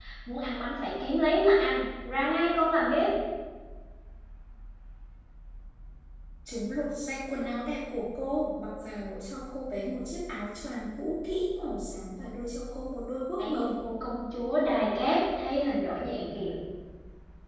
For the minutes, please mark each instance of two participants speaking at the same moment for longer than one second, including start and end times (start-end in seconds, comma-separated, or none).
none